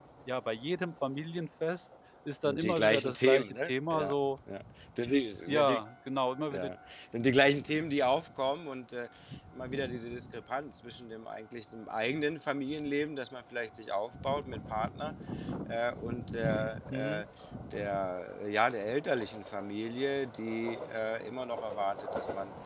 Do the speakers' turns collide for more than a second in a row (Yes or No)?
Yes